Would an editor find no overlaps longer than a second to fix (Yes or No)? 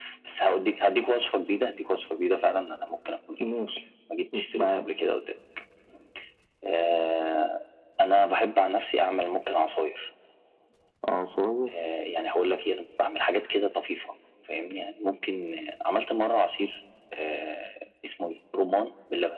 Yes